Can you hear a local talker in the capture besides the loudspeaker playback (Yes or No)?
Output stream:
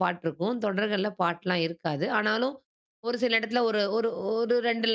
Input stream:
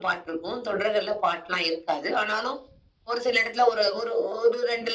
No